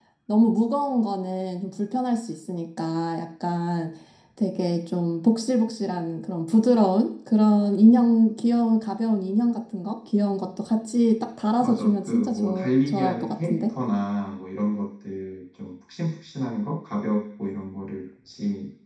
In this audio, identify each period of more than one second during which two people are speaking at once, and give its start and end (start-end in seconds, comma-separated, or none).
11.6-13.7